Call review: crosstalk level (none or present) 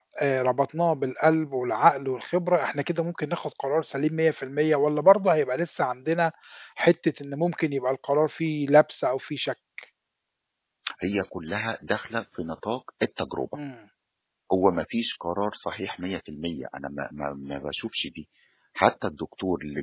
none